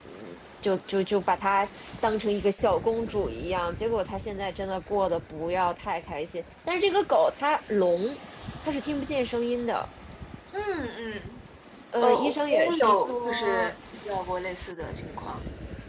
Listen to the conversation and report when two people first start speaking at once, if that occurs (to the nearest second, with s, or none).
12 s